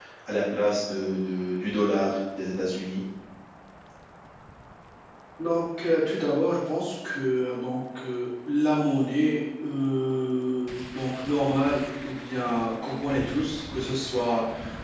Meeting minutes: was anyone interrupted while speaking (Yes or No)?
No